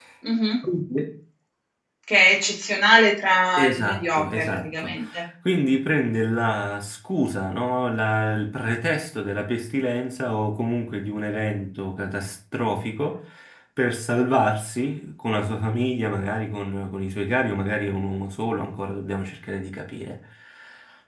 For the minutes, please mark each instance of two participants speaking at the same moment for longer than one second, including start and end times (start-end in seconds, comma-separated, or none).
3.6-4.9